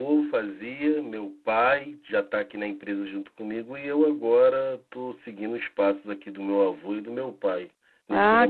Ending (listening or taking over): taking over